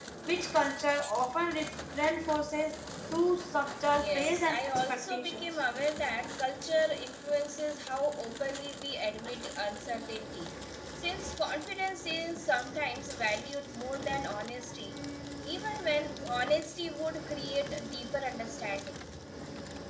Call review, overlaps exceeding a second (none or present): present